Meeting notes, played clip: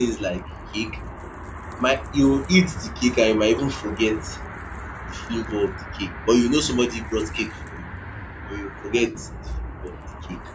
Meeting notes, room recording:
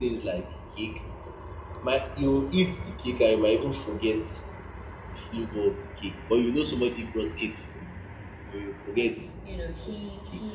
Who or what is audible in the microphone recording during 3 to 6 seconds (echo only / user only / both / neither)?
echo only